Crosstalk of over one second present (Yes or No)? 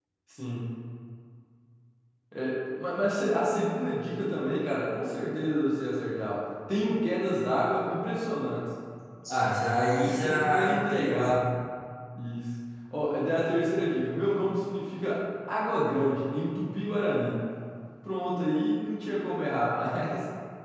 Yes